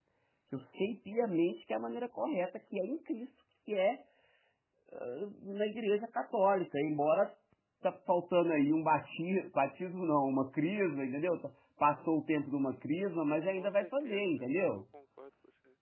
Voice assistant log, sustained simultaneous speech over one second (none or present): present